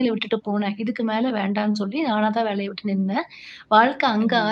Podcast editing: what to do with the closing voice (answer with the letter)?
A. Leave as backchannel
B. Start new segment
A